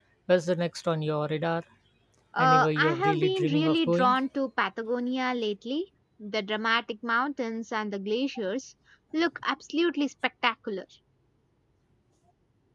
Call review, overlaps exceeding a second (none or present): present